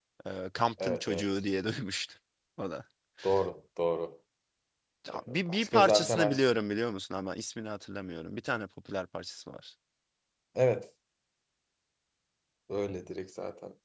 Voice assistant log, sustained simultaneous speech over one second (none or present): present